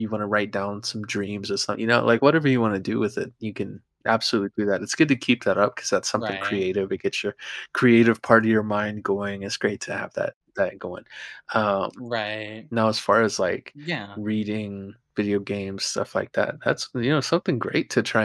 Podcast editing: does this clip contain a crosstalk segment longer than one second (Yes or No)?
No